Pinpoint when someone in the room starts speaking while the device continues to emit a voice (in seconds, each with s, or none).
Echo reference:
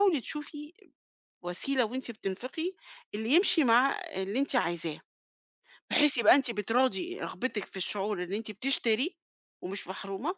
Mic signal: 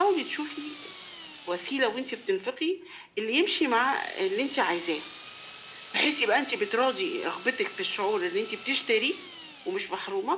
none